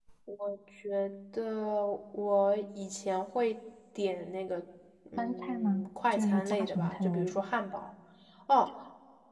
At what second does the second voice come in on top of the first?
5.2 s

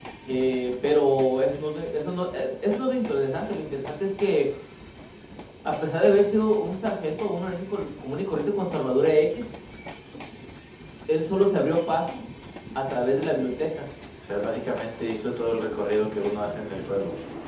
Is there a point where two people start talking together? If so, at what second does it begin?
none

